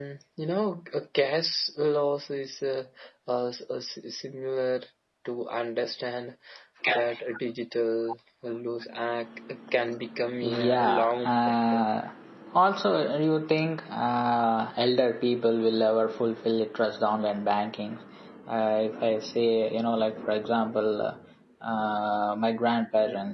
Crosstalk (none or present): present